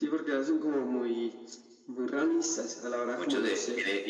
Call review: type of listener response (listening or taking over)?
taking over